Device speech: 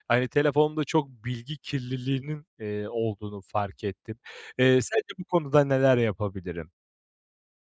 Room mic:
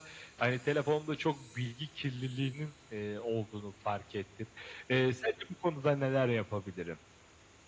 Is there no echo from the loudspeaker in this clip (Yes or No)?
No